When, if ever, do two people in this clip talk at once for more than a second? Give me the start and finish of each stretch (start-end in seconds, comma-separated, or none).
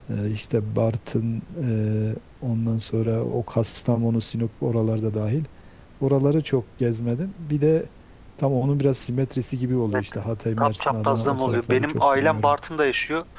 10.6-12.6